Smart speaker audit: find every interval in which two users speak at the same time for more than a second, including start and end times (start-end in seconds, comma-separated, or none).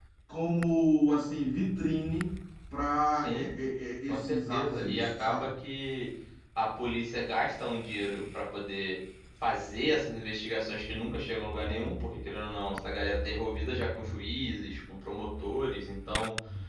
4.1-5.5